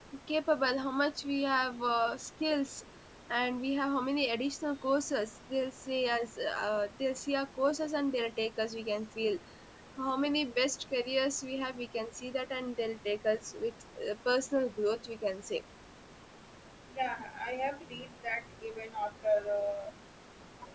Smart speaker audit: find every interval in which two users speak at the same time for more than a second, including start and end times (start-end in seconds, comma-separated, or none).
none